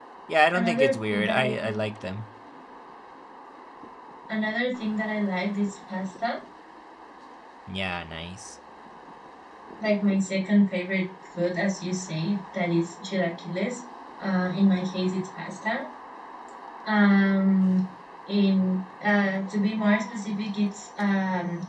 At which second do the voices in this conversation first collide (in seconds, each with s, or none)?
0.5 s